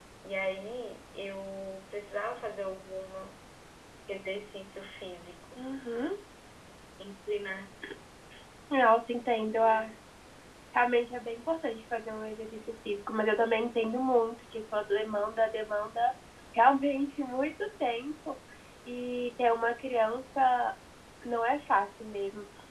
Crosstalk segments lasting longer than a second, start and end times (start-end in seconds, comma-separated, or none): none